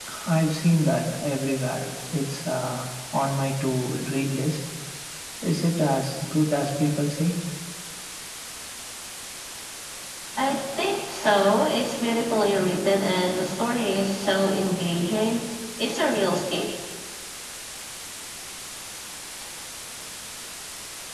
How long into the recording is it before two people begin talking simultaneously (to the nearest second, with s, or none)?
none